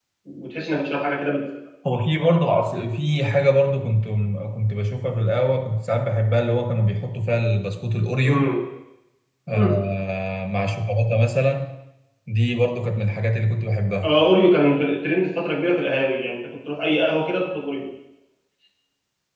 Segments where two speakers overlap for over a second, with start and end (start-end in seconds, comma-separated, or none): none